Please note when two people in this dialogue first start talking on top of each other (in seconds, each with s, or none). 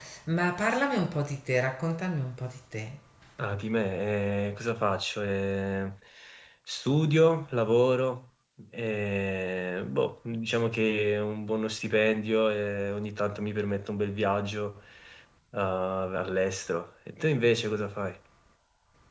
none